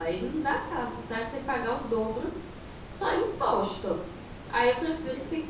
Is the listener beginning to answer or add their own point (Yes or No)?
No